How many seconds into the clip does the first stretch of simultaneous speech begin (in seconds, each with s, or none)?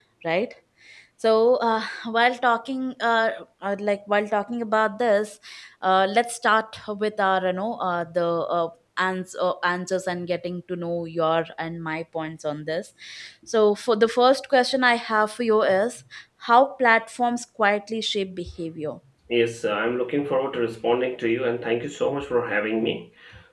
none